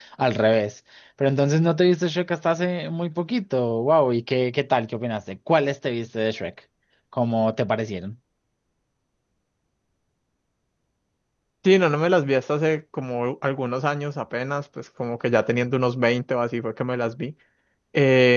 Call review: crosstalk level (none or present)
none